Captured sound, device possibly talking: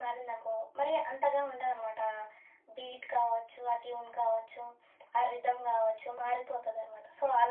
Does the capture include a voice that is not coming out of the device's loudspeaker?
No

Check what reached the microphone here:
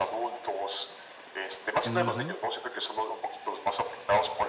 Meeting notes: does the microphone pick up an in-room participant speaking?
Yes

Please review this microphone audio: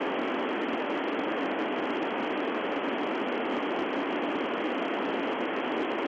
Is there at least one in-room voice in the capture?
No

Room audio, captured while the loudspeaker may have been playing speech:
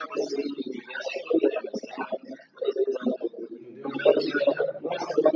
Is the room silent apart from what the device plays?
No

